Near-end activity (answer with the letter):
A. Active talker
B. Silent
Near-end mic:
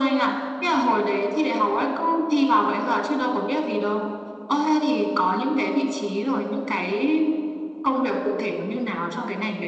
B